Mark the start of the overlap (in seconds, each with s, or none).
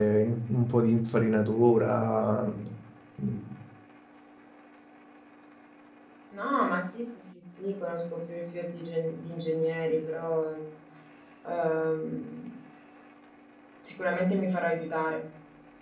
none